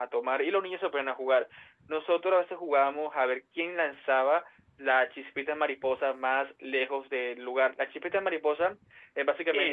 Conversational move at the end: taking over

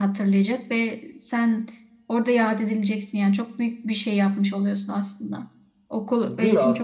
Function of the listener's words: taking over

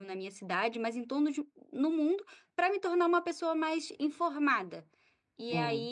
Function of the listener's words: listening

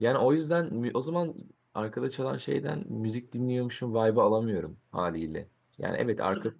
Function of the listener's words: listening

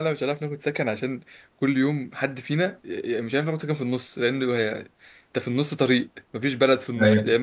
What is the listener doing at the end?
listening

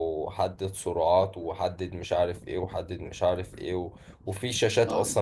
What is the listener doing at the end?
listening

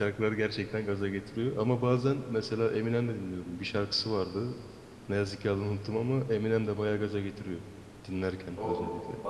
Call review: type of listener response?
taking over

